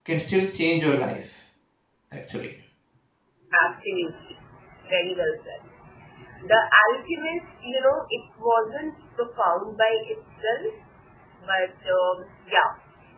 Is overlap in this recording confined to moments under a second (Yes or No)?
Yes